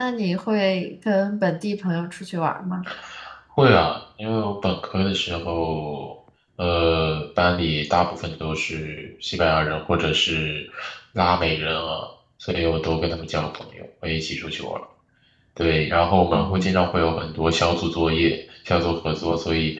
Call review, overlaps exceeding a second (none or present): none